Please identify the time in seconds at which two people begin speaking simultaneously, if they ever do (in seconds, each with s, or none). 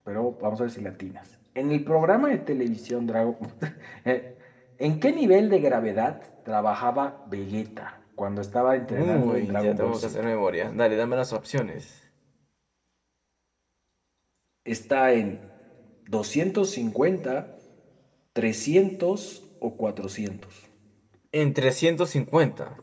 8.9 s